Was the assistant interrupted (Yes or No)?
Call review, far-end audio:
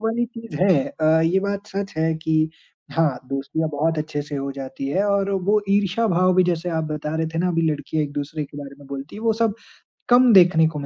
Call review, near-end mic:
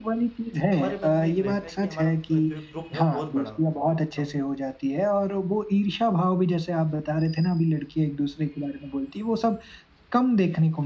Yes